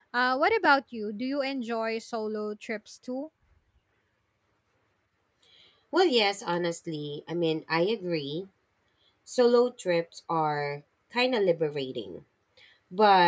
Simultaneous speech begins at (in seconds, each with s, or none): none